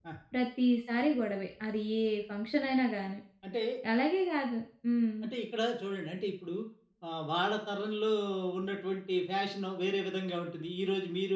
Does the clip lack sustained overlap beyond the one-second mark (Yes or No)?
Yes